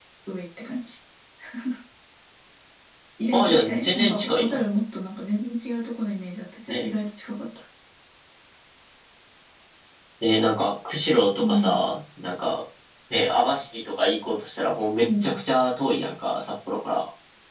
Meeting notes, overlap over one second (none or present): present